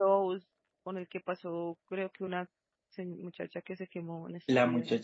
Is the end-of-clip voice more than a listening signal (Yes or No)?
Yes